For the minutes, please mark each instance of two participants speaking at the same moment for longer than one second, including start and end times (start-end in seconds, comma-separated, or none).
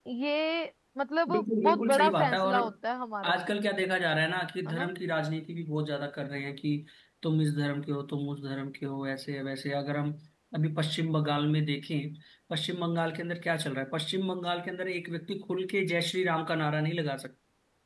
1.3-2.6